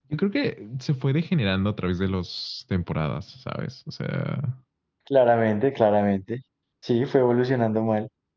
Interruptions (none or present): none